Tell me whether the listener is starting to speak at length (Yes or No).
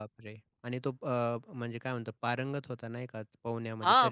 Yes